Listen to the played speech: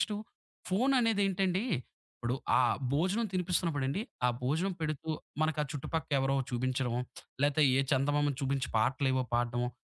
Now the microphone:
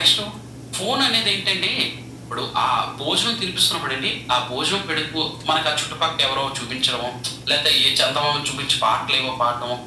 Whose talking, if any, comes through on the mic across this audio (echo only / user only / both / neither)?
echo only